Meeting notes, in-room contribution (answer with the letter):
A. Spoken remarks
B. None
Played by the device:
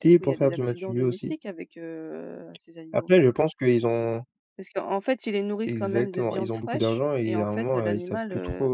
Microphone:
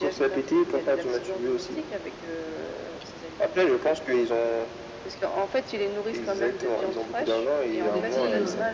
A